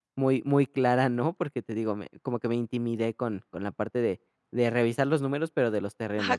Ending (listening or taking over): taking over